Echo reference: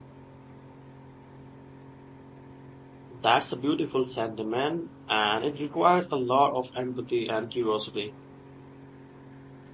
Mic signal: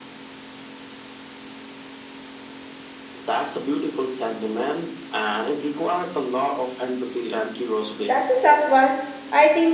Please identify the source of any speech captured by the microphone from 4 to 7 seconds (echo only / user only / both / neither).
echo only